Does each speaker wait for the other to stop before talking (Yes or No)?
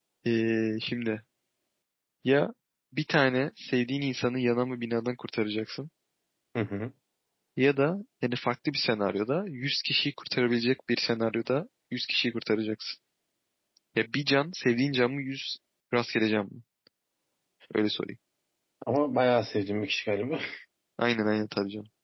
Yes